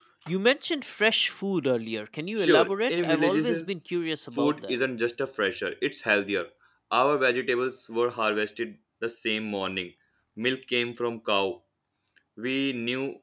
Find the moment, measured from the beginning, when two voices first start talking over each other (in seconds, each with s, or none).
2.4 s